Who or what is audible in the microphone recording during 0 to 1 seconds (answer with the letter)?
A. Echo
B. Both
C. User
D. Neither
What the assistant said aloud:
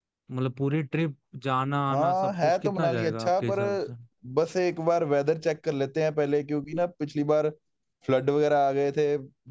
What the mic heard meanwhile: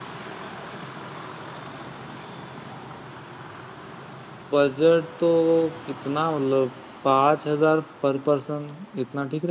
D